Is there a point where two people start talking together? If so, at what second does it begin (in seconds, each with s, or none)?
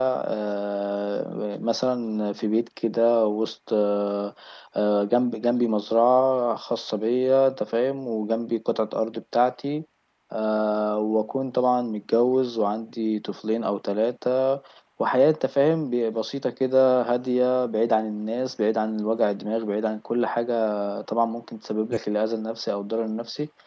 none